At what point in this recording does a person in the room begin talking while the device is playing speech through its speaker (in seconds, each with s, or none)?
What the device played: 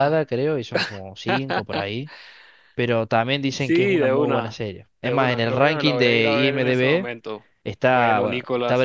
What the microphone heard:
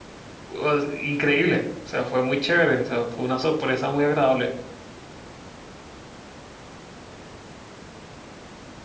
0.5 s